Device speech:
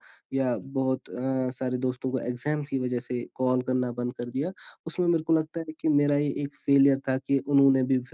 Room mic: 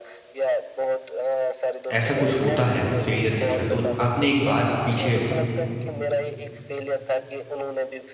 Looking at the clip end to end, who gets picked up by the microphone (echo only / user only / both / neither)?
both